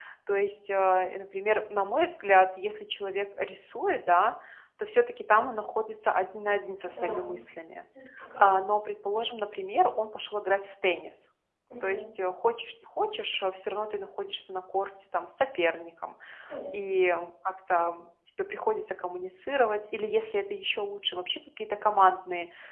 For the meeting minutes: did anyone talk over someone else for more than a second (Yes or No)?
No